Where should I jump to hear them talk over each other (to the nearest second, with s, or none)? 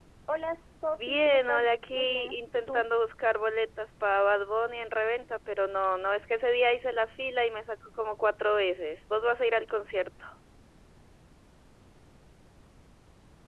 1 s